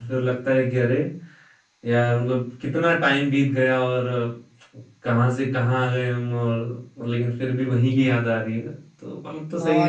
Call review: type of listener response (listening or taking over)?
taking over